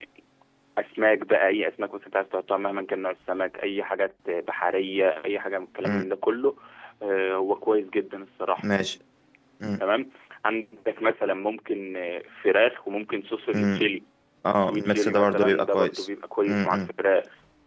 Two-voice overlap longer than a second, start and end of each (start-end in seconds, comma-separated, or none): 14.6-16.1